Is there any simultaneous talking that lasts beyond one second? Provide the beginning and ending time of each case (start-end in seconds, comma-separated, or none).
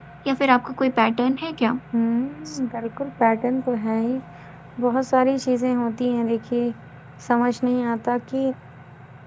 none